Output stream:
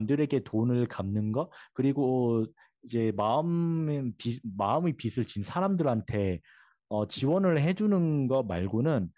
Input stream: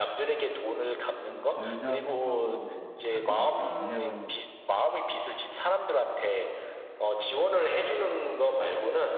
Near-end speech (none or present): present